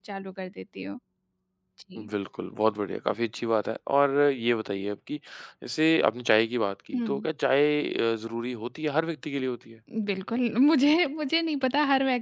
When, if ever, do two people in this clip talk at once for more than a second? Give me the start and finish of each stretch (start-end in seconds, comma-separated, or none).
none